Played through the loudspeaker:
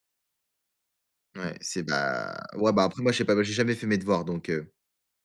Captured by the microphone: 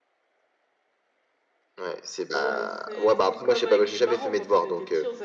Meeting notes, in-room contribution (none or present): present